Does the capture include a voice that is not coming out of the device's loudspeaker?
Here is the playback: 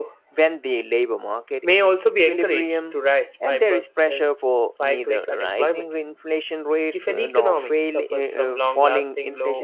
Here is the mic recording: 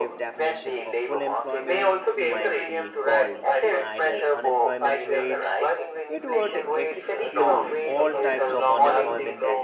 Yes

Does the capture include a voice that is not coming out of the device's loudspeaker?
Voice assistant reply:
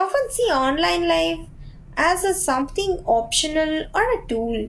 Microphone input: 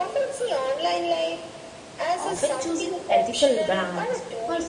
Yes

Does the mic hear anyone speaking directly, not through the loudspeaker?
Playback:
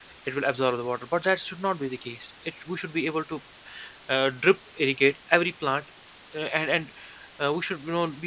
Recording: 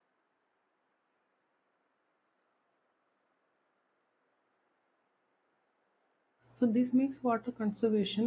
Yes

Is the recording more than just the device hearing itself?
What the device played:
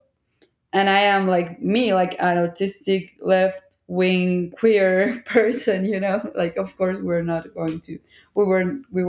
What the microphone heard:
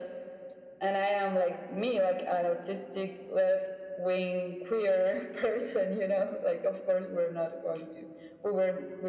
No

